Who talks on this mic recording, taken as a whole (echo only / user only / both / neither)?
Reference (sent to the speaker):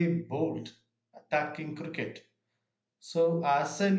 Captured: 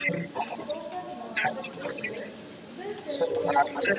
both